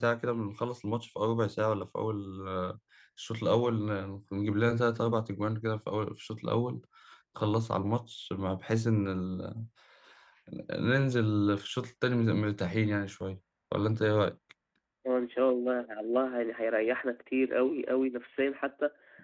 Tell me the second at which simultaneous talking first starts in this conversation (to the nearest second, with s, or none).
none